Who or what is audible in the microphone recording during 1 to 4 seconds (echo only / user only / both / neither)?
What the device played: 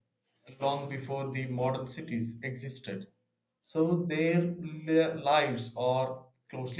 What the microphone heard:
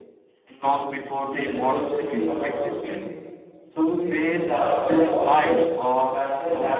both